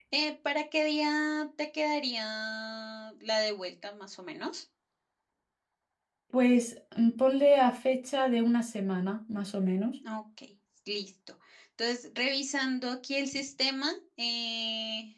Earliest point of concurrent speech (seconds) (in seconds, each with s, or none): none